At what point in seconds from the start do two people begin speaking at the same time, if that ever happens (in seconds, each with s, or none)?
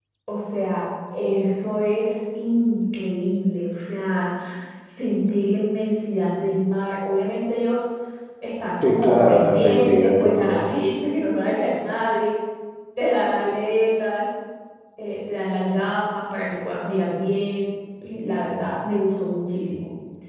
8.8 s